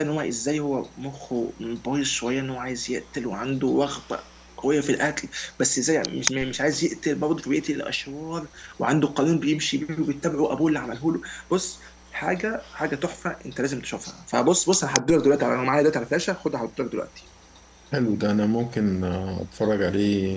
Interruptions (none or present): none